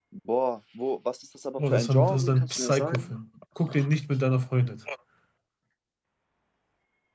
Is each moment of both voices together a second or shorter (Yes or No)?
No